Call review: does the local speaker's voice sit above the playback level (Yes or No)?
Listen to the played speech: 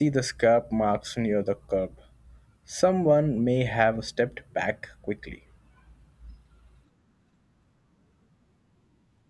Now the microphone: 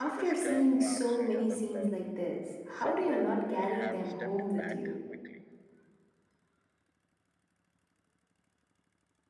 Yes